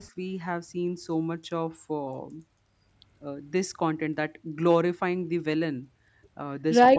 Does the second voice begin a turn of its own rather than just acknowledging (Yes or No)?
Yes